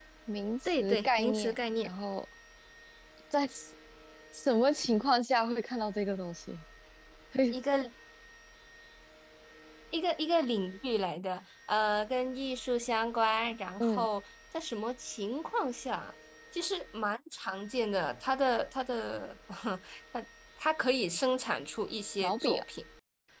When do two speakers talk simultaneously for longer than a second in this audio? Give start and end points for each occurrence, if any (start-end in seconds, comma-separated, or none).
0.6-1.9